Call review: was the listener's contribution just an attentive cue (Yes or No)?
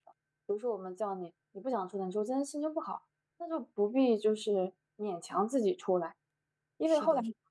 Yes